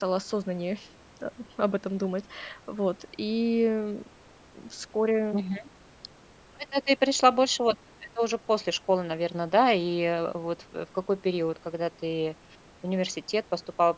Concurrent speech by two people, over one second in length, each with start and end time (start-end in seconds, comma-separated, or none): none